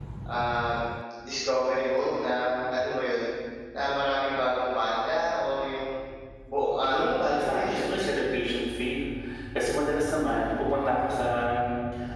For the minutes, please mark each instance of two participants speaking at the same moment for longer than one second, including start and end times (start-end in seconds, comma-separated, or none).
6.8-8.2